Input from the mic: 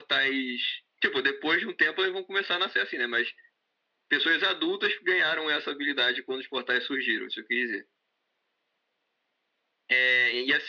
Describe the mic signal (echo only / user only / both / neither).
echo only